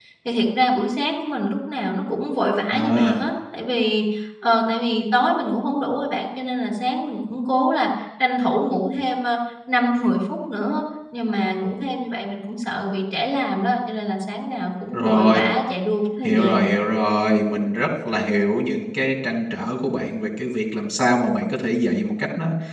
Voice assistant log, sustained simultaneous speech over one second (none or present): none